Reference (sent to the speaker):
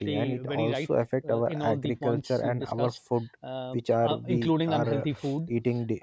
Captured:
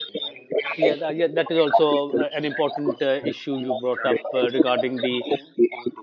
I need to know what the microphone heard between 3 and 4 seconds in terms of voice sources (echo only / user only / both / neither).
both